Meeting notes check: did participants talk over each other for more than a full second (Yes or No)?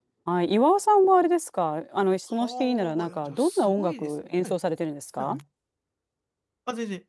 Yes